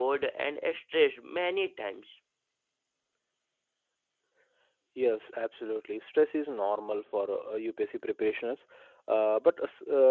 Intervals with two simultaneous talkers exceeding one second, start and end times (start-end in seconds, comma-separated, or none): none